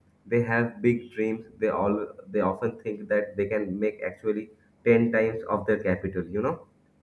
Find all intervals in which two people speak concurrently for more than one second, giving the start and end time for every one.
none

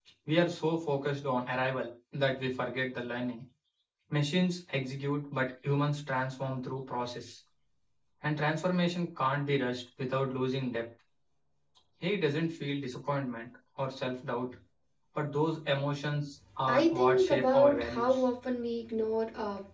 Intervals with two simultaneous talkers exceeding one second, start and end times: 16.7-18.2

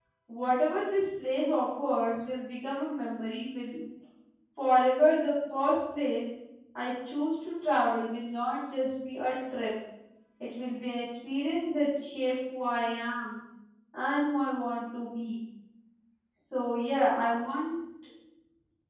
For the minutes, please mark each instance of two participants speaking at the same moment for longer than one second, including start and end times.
none

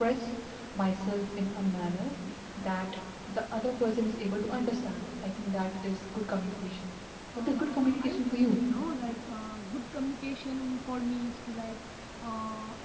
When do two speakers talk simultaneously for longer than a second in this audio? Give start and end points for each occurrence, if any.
7.4-8.6

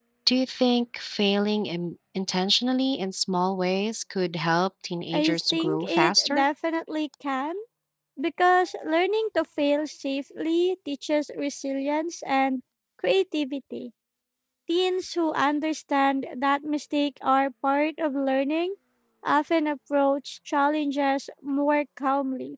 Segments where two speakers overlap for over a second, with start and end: 5.1-6.4

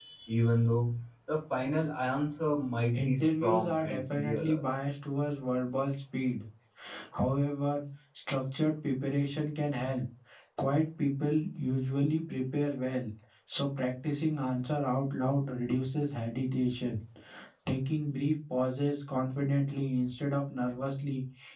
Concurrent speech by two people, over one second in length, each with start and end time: 2.9-4.6

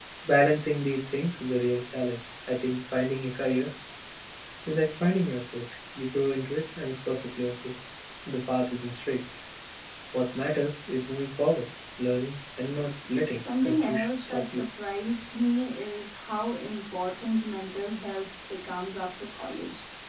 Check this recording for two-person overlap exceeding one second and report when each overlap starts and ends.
13.3-14.6

